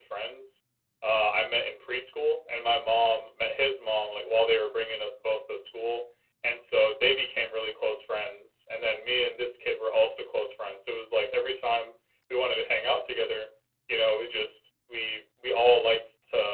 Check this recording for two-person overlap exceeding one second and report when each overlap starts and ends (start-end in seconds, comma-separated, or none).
none